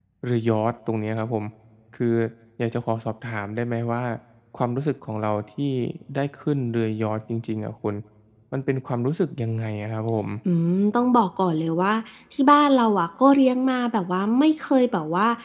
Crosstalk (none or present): none